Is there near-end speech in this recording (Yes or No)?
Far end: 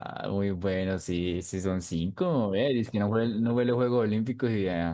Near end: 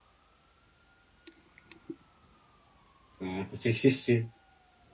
Yes